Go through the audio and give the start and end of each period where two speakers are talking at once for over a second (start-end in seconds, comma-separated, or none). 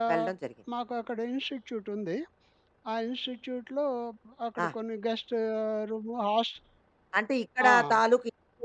none